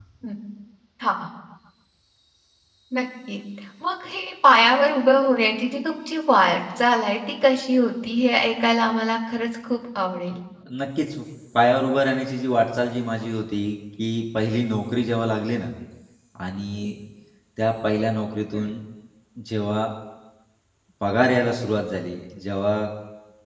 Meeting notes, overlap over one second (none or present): none